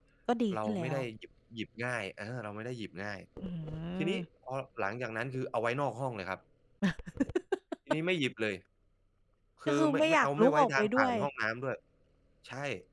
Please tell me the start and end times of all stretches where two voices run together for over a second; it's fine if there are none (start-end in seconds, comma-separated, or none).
9.7-11.1